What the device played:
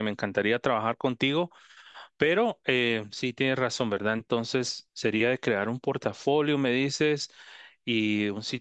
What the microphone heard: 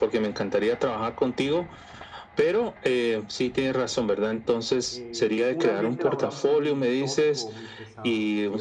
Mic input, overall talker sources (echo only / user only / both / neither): both